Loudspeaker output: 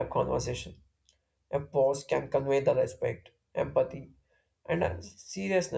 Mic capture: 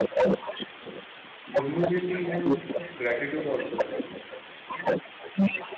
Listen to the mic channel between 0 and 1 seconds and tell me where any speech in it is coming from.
echo only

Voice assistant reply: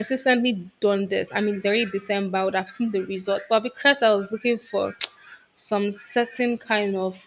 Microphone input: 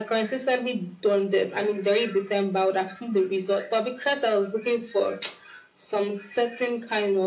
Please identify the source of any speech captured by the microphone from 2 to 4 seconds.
echo only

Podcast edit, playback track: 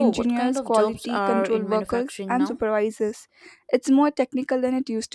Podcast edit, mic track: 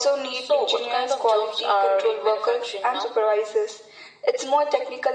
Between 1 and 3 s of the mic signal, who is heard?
echo only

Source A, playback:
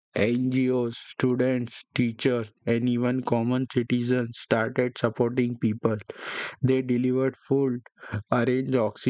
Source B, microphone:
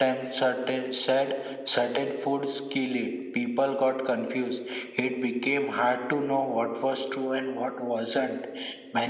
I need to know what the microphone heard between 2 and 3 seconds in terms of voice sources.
user only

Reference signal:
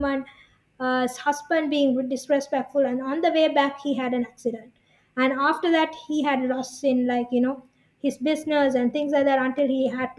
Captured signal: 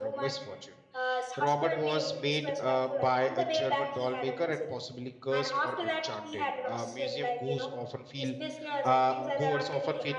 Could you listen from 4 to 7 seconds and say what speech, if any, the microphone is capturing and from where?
both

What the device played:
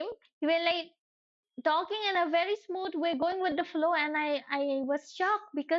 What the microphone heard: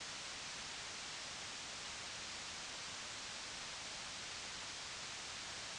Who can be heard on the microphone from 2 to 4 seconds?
neither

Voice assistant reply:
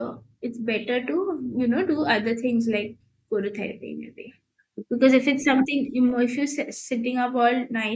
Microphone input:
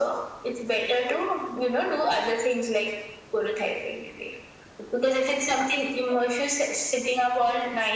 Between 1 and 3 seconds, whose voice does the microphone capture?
echo only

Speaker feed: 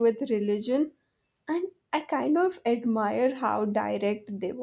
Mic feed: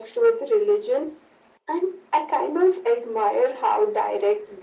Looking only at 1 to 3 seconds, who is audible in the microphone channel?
echo only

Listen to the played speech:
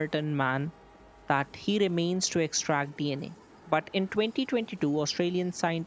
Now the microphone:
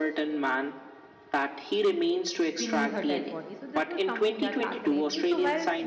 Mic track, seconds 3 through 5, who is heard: both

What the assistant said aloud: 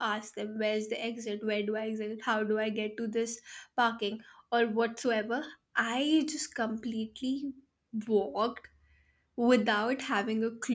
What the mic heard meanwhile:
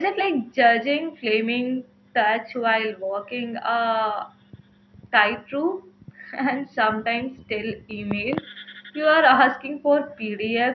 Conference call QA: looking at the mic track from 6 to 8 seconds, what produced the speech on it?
user only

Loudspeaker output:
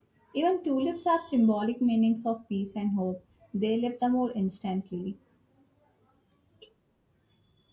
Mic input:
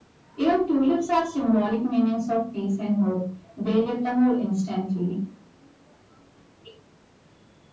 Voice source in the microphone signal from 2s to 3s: echo only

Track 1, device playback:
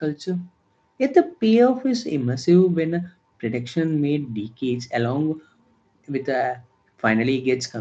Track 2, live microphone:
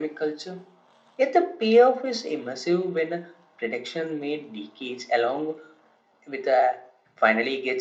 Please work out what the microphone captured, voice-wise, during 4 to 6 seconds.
echo only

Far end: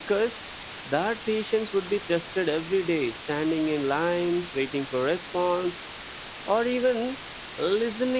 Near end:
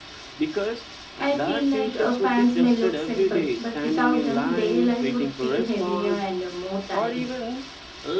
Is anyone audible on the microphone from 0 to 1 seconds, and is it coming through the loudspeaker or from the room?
echo only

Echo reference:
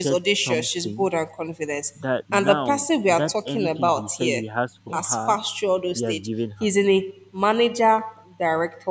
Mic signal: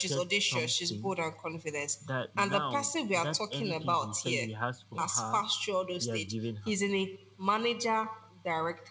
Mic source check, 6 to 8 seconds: echo only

